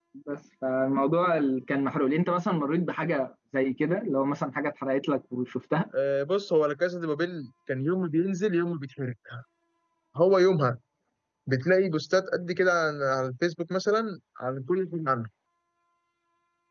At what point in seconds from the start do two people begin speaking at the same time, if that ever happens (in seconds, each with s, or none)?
none